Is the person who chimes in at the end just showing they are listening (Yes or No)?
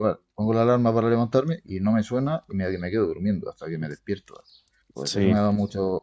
Yes